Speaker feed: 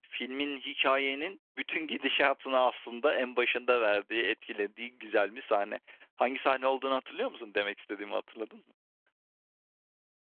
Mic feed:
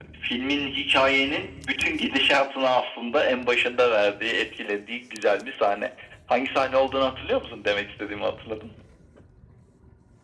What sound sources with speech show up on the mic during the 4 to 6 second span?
echo only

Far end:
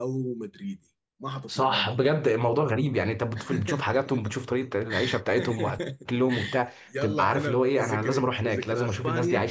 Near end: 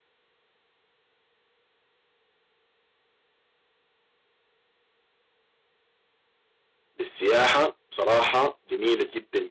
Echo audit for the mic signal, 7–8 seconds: user only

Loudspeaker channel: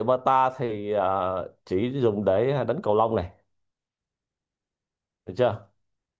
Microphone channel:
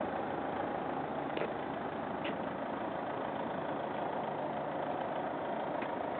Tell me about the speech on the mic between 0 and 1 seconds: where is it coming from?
neither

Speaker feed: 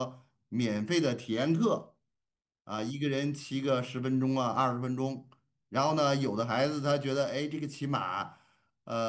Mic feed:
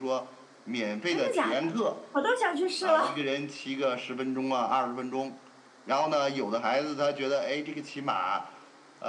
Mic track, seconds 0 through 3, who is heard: both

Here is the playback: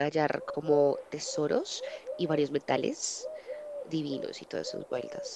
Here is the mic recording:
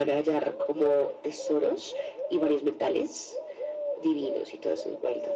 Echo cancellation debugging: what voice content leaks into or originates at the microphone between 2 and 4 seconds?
echo only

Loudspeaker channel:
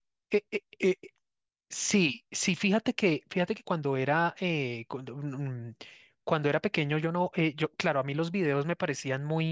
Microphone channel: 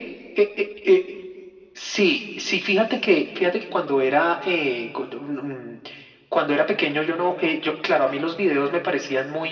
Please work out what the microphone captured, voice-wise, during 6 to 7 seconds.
echo only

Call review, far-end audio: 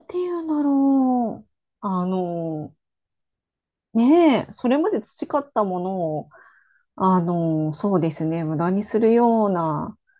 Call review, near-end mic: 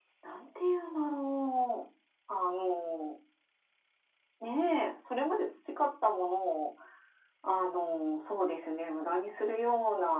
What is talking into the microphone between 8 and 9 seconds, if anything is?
echo only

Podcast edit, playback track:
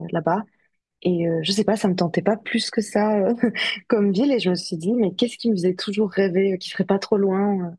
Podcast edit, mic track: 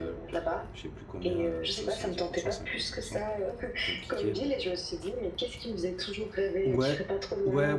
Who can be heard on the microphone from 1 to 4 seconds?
both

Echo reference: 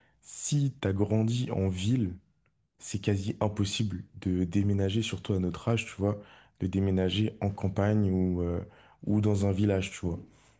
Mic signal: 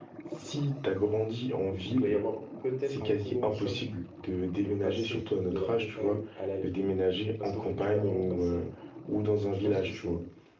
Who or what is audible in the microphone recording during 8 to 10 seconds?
both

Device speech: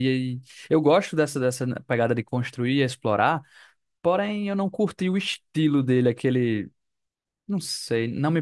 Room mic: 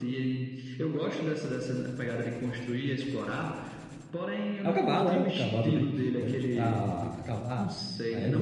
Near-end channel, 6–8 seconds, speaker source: both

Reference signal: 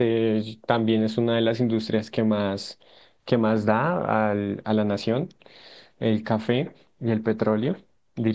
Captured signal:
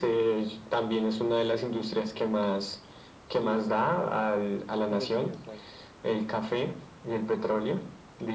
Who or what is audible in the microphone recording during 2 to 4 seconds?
both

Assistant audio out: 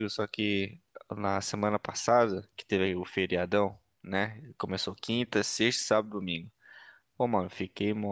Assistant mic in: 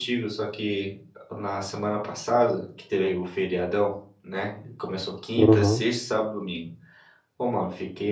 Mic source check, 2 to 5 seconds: echo only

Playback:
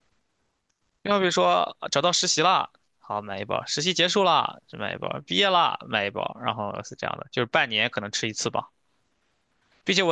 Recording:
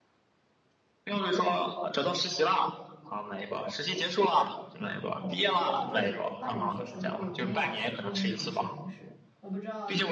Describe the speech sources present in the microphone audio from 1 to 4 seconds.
echo only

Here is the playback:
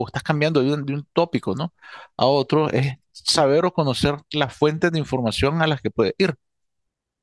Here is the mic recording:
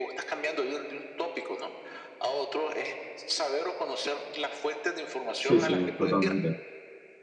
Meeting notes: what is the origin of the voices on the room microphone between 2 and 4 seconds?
echo only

